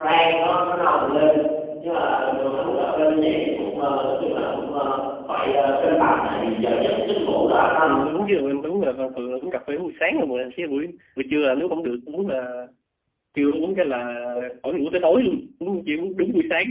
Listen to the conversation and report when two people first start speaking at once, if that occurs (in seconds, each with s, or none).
none